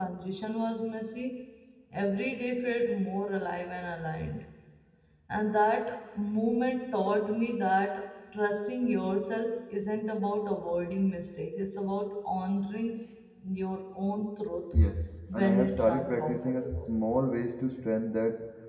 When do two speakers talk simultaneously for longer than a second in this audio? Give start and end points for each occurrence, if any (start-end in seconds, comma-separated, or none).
15.3-16.9